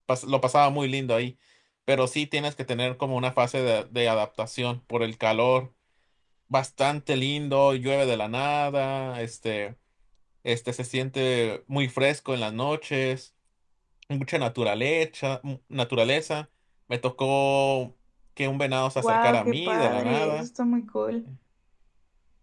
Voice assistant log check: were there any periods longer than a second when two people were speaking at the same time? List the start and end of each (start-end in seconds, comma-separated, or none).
19.0-20.5